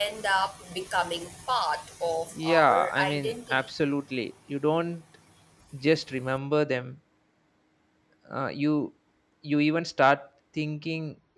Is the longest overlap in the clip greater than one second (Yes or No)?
Yes